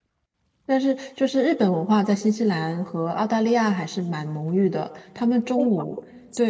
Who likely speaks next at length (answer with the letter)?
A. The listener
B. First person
B